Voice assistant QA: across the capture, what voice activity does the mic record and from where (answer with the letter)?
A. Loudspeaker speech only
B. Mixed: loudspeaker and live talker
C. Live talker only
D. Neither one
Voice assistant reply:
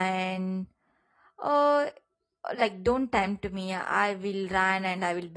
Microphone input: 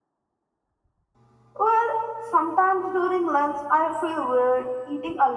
C